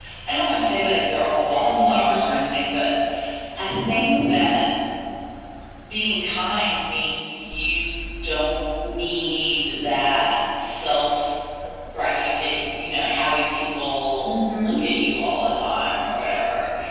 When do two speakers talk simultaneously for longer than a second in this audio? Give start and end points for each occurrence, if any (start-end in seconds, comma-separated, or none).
none